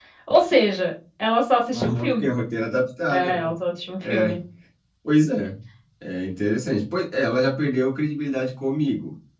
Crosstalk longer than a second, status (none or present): none